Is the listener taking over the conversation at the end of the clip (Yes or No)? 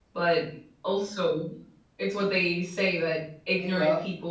No